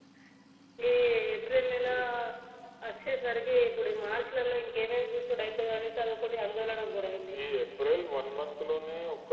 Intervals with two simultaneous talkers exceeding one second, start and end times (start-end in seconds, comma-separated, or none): none